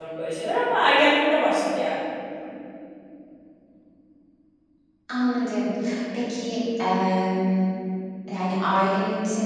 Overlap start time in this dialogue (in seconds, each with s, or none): none